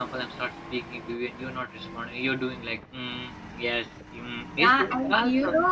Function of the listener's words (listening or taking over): taking over